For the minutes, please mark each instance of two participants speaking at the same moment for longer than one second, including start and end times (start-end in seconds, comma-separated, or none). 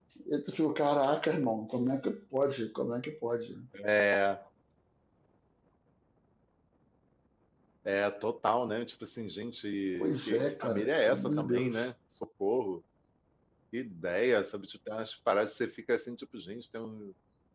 10.0-11.8